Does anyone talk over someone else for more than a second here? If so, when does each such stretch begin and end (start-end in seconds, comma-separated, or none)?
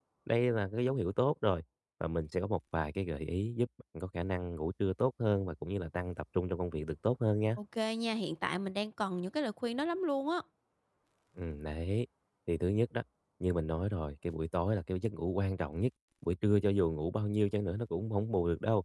none